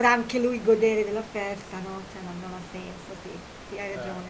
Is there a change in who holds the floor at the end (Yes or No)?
Yes